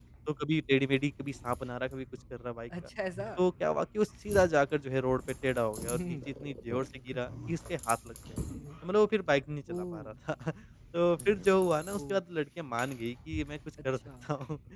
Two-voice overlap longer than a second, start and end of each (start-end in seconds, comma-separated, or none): none